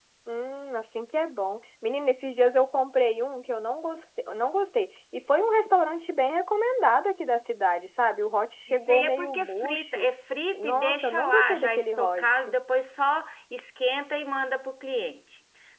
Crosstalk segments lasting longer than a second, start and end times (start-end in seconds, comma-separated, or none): 8.7-10.1, 10.6-12.5